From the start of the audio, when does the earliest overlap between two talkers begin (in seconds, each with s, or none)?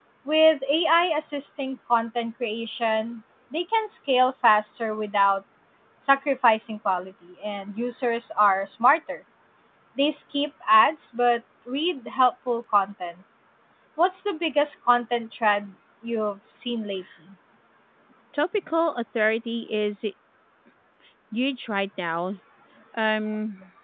none